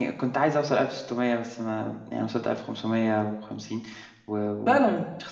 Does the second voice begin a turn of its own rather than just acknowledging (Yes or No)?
Yes